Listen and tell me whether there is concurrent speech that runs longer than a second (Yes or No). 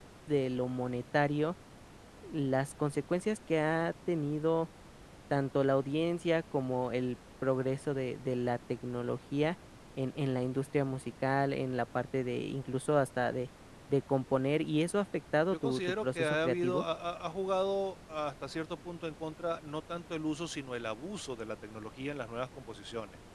Yes